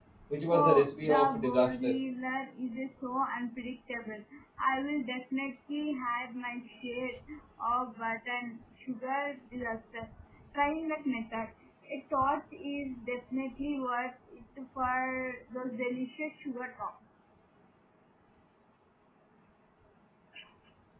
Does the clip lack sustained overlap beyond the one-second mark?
No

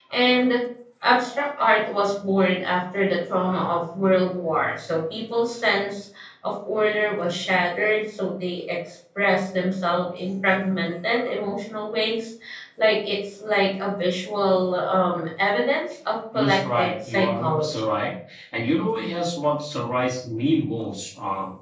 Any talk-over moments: Yes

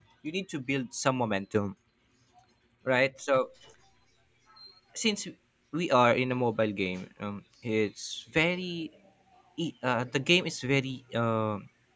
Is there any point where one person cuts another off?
No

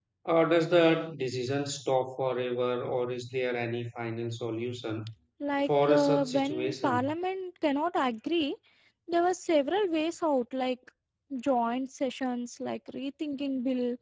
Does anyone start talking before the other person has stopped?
Yes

